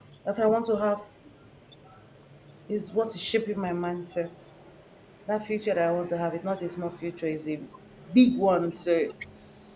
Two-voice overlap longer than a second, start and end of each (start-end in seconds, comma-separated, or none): none